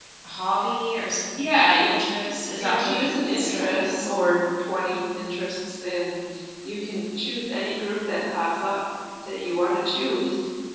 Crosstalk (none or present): present